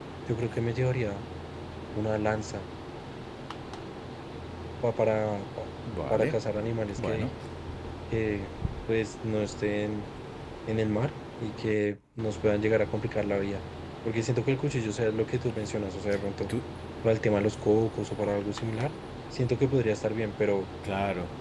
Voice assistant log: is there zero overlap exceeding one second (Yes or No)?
Yes